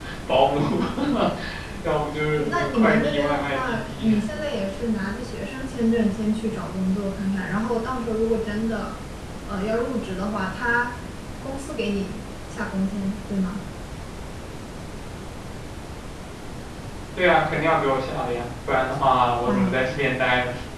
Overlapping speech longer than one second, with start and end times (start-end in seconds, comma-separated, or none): 2.4-4.1